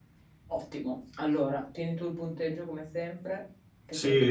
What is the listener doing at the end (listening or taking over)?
taking over